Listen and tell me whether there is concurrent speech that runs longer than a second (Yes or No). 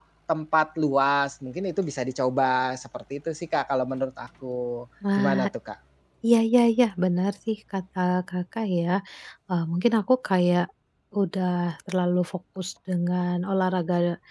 No